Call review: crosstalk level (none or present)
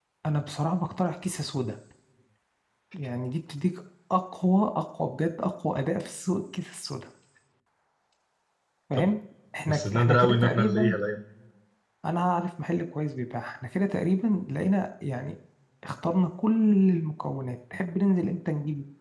present